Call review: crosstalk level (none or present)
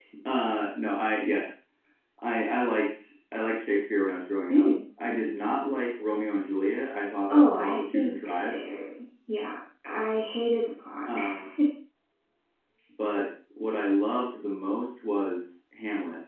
present